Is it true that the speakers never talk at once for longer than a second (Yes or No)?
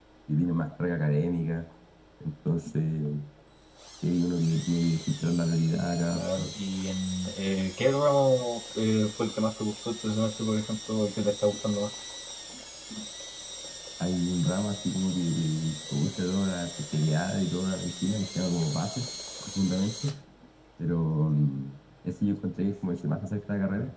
Yes